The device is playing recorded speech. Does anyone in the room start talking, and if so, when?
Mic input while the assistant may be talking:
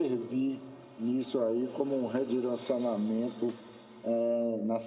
none

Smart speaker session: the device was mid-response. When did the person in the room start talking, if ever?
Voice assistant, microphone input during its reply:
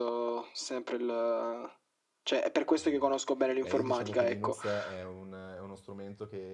2.8 s

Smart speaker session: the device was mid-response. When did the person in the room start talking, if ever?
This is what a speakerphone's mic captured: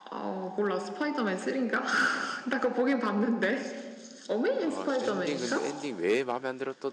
4.6 s

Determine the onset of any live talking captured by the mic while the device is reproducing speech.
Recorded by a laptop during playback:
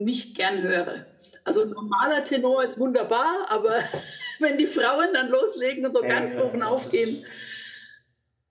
6.0 s

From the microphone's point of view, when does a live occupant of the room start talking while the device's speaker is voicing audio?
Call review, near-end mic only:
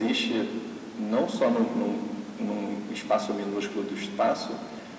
none

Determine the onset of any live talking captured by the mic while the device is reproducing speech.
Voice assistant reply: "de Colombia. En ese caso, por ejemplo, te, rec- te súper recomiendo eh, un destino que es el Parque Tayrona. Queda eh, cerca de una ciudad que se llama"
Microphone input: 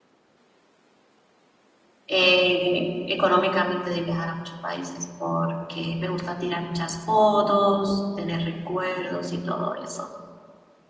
2.1 s

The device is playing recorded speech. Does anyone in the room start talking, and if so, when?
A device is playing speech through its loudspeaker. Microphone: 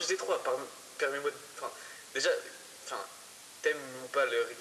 none

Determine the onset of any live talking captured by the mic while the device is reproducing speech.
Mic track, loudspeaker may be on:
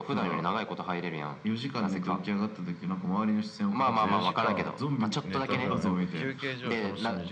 3.8 s

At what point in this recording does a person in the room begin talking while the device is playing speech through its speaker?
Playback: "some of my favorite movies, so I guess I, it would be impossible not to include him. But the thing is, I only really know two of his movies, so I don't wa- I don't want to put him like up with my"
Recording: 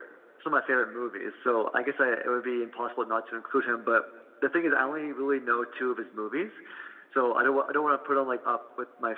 none

